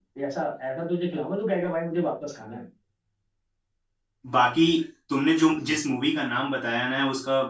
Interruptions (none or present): none